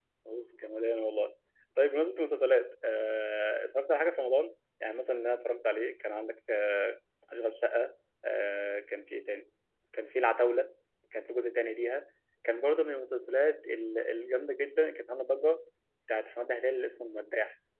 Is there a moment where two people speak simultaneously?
No

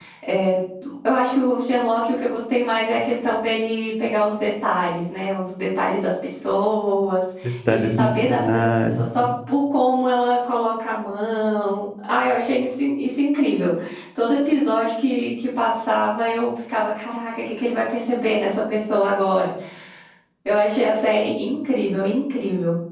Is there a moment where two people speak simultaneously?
Yes, from 7.7 s

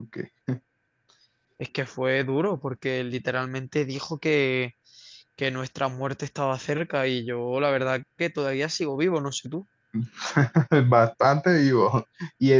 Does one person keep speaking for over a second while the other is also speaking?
No

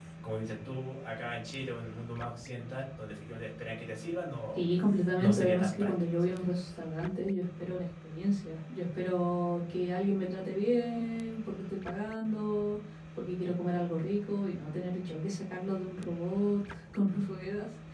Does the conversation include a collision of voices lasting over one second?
Yes, from 5.2 s

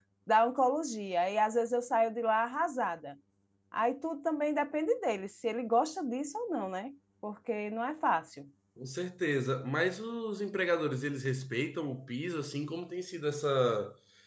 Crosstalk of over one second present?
No

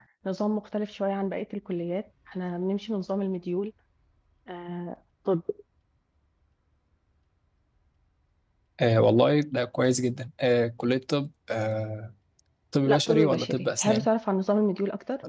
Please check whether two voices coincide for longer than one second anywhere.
Yes, from 12.8 s

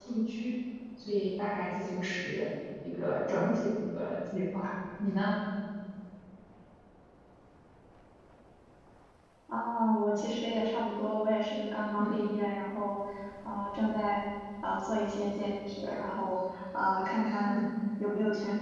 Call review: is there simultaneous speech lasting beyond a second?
No

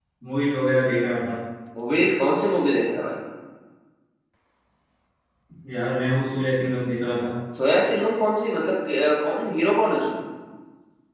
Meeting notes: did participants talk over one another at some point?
No

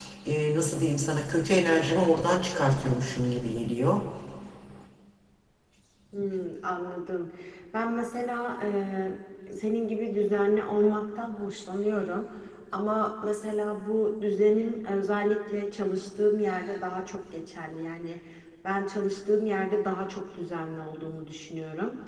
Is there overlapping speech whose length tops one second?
No

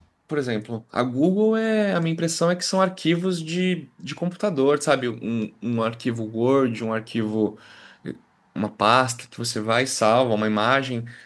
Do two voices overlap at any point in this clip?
No

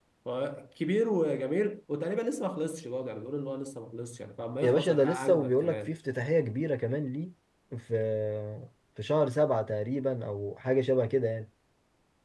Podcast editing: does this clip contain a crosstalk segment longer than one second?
Yes, from 4.6 s

